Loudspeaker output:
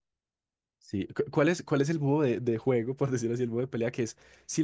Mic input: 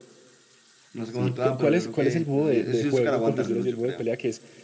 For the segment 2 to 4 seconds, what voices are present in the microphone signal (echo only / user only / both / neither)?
both